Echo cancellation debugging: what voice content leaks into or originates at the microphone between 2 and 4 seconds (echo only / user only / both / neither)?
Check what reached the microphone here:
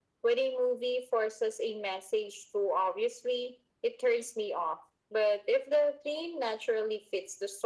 echo only